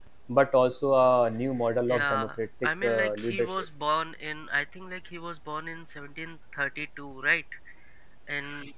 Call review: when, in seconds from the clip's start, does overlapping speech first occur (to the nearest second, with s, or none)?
2 s